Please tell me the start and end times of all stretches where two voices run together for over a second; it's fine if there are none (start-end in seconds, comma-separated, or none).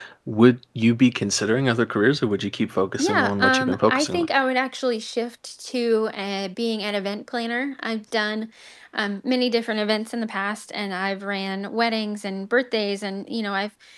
3.0-4.3